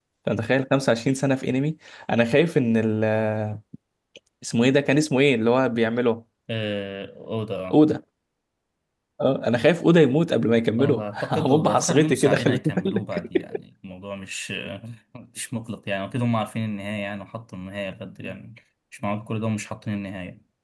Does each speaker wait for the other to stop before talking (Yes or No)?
No